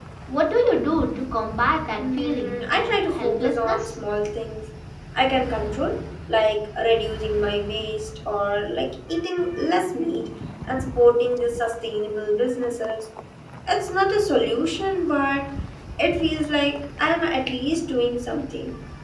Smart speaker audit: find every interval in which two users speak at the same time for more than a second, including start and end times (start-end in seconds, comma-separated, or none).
2.0-4.0